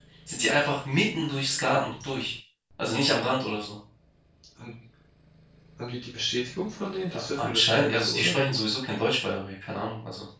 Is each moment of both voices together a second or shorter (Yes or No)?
No